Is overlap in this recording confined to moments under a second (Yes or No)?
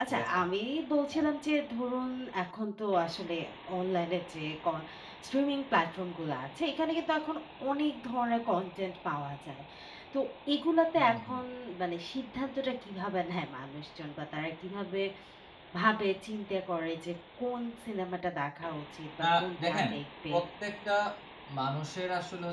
Yes